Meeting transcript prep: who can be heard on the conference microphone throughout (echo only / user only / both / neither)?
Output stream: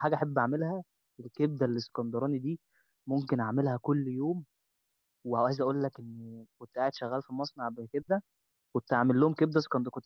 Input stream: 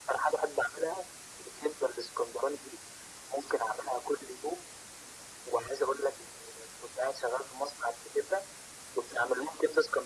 echo only